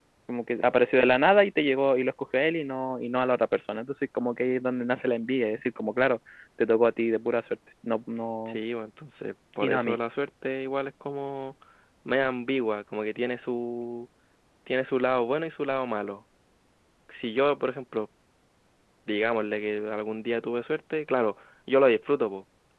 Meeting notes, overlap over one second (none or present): none